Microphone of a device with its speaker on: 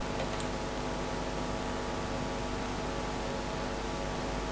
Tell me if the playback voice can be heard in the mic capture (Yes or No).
No